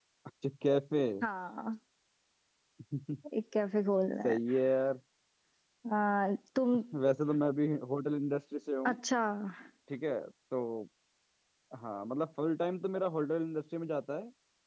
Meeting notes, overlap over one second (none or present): none